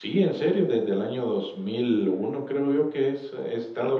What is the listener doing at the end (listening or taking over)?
taking over